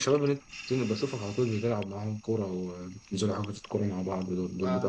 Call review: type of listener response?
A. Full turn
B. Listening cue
A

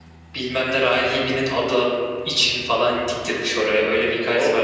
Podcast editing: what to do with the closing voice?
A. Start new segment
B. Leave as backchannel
A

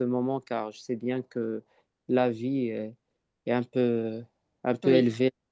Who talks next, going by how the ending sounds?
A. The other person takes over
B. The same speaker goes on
B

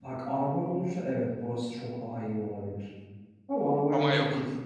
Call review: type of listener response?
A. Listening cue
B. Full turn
A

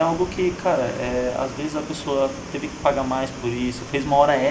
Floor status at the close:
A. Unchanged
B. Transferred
A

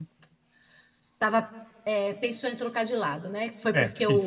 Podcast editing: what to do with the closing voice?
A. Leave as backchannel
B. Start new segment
A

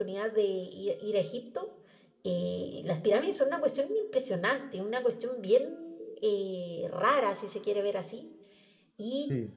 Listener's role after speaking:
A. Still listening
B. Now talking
A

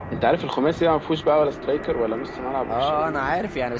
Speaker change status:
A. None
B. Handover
B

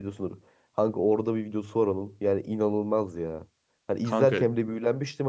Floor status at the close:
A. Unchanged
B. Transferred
A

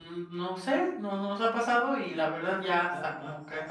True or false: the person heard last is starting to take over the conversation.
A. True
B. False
A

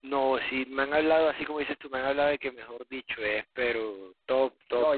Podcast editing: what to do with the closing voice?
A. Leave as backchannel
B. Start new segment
B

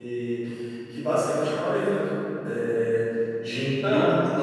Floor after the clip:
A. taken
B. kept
B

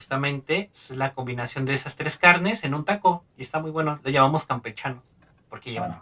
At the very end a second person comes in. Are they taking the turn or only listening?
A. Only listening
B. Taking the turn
B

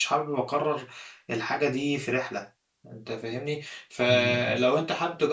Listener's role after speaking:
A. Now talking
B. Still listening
B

